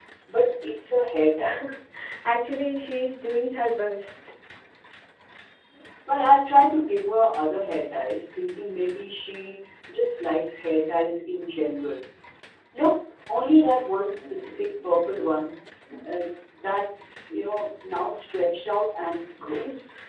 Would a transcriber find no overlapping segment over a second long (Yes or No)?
Yes